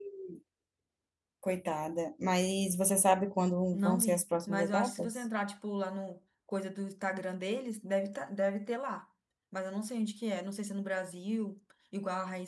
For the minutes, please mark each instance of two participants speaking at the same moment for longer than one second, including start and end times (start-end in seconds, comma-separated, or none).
3.7-5.2